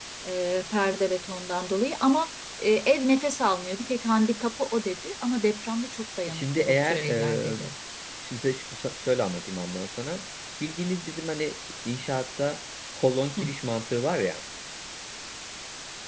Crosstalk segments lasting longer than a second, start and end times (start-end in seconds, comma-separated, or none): 6.3-7.6